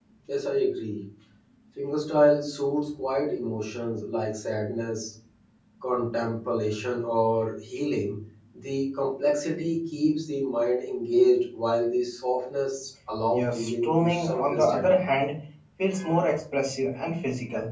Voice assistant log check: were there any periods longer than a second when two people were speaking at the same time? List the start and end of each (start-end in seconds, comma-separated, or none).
13.3-14.9